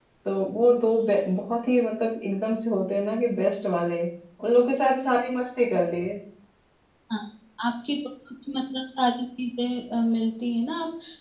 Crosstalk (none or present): none